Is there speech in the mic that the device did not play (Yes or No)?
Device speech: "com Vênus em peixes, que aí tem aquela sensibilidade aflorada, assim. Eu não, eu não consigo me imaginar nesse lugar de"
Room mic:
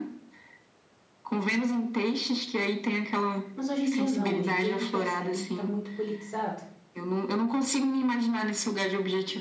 Yes